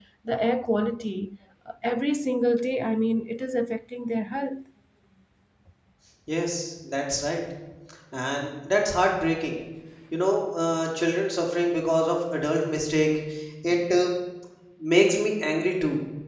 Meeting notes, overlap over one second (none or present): none